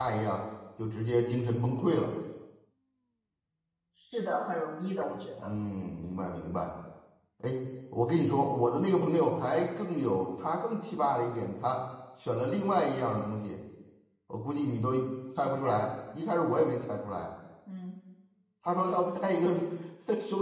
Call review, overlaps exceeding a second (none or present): none